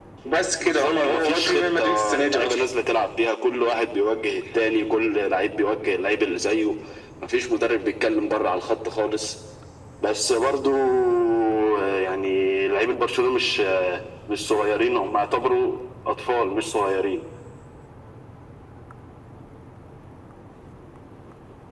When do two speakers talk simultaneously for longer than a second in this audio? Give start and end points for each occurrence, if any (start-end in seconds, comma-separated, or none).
0.6-2.6